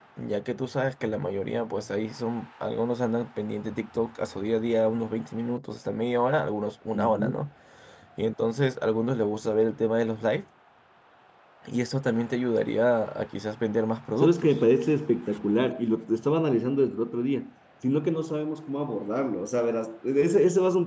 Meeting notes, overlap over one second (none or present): none